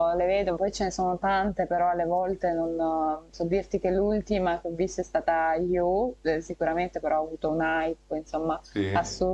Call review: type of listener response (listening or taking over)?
listening